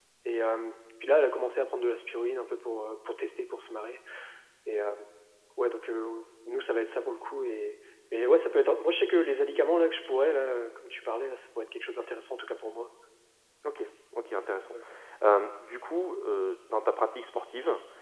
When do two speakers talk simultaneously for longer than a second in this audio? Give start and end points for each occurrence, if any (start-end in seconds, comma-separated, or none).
none